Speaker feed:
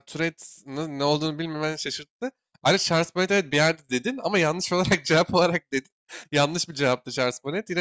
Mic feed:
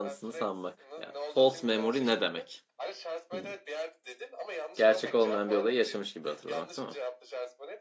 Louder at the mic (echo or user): user